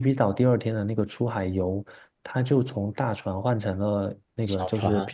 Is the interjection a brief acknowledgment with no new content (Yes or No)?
Yes